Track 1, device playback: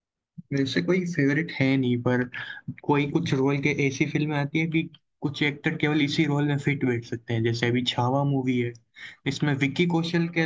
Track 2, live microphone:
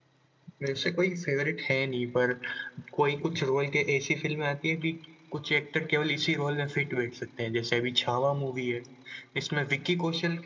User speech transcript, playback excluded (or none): none